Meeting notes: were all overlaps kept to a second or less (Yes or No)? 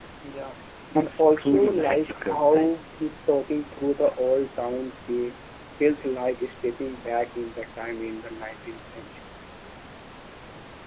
No